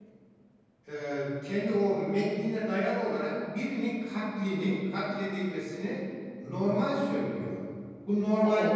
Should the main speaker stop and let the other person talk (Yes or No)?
No